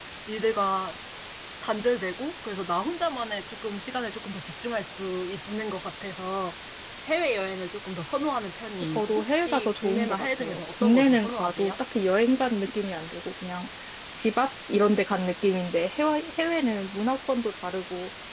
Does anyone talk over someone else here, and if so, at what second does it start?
8.8 s

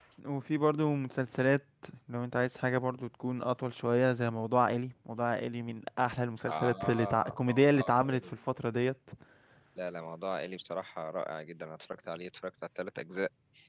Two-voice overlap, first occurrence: 6.5 s

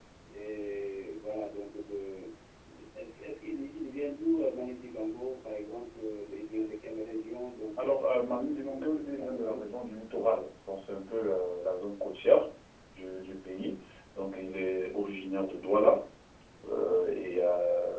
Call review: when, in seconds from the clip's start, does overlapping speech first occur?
7.8 s

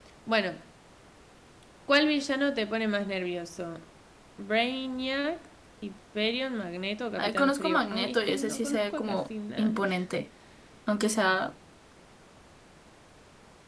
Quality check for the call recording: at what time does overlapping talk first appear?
7.2 s

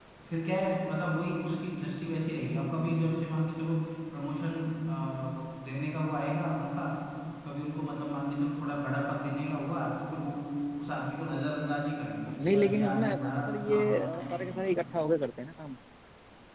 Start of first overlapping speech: 12.2 s

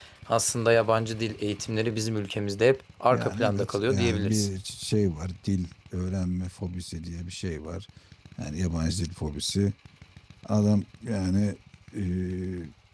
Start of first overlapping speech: 3.1 s

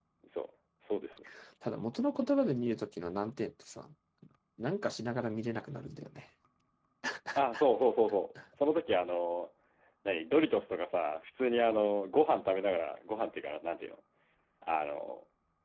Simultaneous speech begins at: none

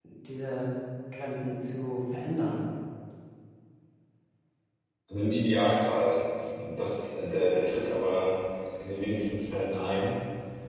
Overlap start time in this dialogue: none

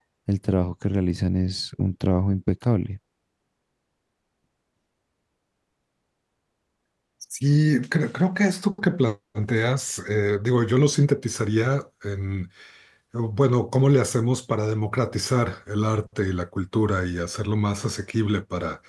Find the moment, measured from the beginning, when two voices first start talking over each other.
none

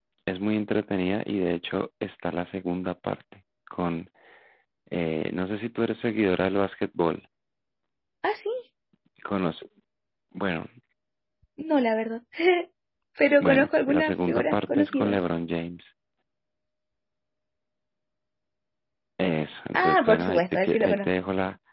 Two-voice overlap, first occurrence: 13.4 s

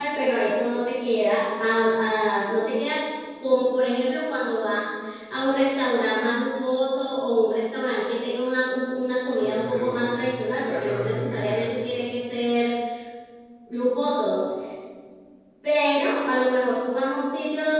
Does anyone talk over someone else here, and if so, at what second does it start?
9.4 s

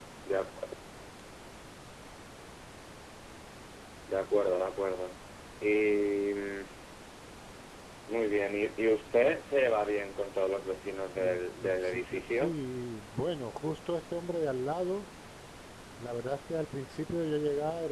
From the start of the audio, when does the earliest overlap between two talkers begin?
11.1 s

